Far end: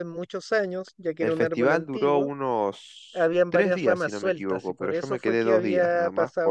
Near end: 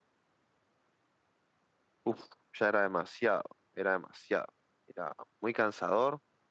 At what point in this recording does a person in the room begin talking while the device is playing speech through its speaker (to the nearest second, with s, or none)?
2 s